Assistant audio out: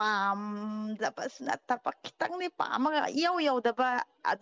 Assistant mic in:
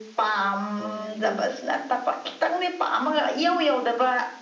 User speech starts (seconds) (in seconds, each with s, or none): 0.8 s